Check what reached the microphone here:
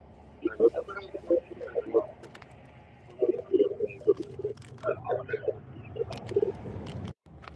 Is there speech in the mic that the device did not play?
No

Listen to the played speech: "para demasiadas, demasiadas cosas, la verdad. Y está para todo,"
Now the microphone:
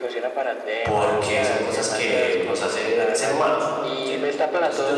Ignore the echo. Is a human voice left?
Yes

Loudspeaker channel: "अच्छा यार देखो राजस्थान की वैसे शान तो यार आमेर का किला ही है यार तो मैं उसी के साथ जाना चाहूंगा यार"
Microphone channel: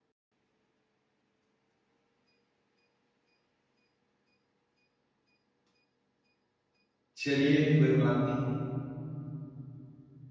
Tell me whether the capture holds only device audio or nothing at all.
No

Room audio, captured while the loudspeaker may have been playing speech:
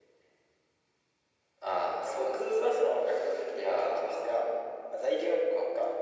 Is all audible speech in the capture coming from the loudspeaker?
Yes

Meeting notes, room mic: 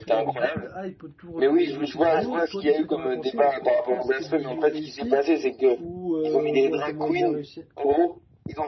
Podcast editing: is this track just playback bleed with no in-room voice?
No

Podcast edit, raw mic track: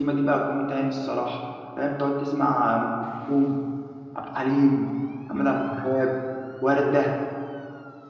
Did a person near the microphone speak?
Yes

